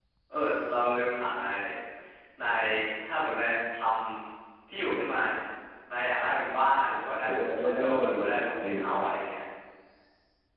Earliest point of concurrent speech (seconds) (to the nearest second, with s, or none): 7 s